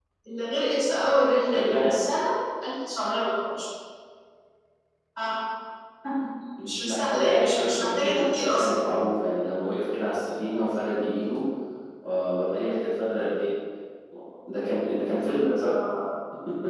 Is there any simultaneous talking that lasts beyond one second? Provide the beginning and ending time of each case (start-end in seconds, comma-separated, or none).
6.6-8.7